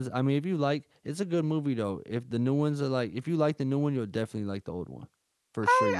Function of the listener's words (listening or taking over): taking over